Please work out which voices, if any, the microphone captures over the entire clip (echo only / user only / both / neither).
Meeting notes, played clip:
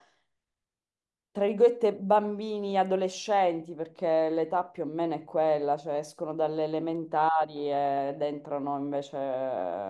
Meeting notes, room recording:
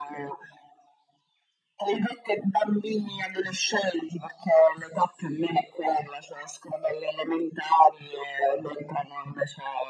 echo only